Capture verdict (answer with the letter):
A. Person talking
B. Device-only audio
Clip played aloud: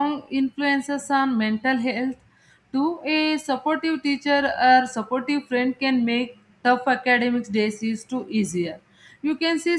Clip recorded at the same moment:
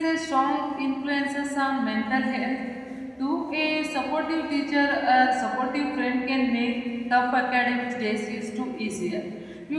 B